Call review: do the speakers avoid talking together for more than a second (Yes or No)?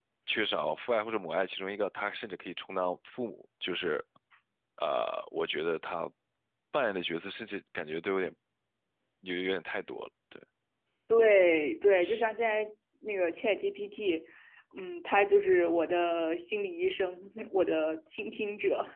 Yes